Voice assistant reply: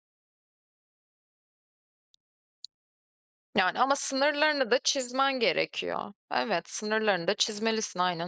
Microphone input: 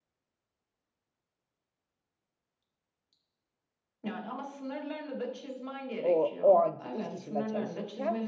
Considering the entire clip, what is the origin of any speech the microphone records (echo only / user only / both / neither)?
both